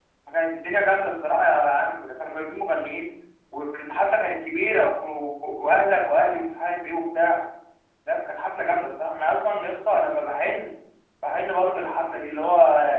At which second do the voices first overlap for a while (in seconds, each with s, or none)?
none